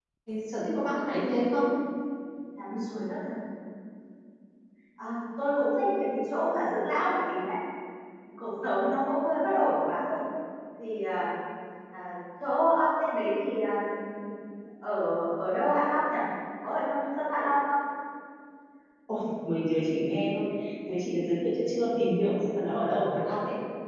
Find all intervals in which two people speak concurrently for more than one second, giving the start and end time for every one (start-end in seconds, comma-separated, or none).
none